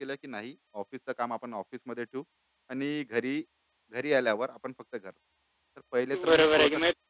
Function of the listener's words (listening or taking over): taking over